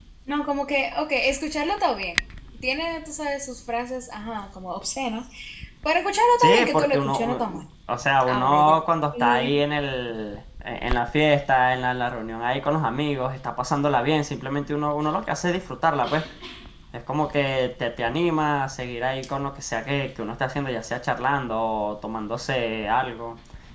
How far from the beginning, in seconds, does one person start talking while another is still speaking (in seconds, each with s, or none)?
6.4 s